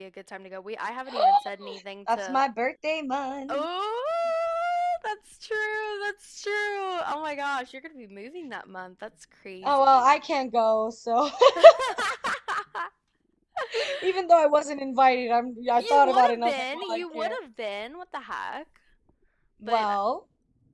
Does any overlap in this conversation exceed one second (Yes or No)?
Yes